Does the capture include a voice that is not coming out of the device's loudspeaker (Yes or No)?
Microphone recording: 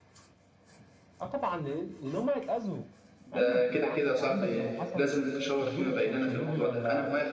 Yes